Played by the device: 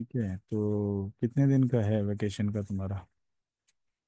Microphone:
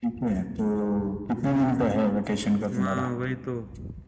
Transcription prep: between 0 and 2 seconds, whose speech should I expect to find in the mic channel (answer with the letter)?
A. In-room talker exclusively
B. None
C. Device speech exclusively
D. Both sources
D